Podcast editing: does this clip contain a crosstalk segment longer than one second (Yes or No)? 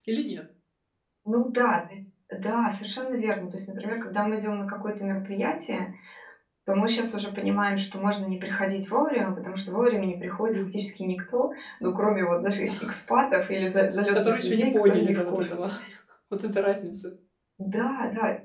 Yes